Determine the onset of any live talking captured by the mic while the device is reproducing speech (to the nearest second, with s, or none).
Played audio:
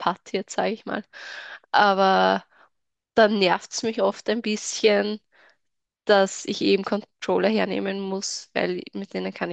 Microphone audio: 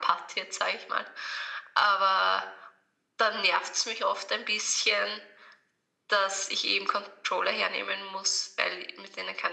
none